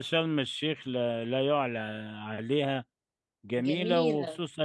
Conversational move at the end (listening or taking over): listening